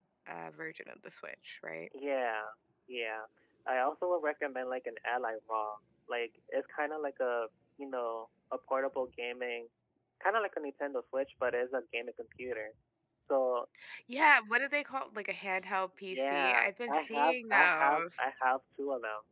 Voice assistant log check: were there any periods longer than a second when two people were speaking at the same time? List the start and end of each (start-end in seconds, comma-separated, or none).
16.1-18.2